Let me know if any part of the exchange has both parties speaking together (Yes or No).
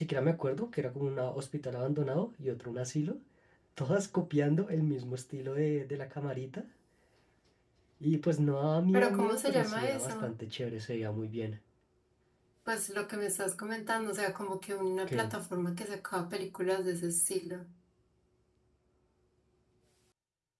Yes